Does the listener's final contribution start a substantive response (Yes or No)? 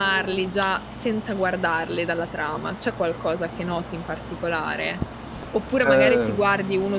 No